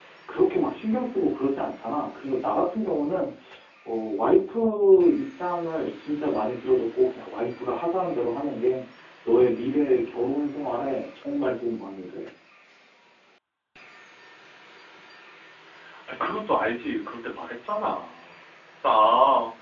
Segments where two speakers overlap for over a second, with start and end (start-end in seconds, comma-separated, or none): none